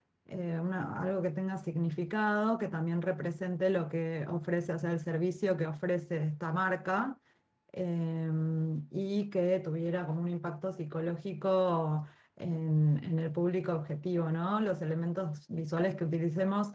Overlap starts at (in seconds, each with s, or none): none